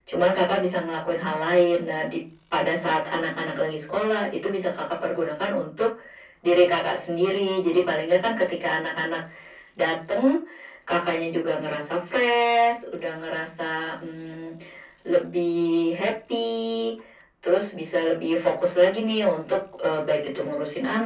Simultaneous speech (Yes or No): No